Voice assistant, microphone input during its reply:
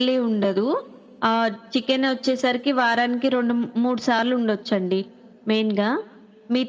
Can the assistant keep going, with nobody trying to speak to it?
Yes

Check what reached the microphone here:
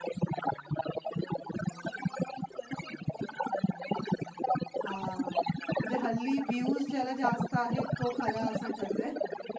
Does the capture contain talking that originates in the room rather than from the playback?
Yes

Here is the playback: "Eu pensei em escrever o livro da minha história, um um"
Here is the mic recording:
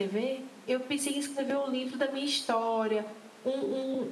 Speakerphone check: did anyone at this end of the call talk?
No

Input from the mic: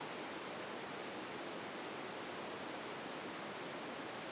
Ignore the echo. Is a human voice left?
No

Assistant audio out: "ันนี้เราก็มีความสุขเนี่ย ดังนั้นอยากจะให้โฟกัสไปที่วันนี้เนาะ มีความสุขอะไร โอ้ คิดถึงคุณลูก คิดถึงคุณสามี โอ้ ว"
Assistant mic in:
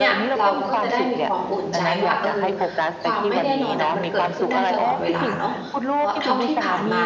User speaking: Yes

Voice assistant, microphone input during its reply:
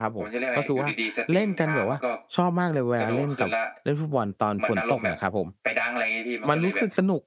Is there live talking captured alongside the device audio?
Yes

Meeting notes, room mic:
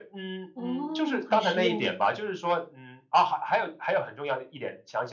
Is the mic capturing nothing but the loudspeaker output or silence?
No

